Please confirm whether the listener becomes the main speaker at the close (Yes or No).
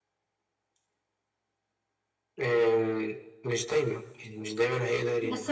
Yes